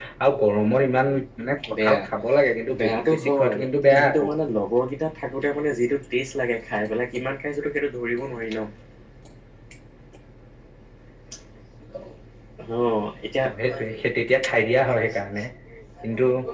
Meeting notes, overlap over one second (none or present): present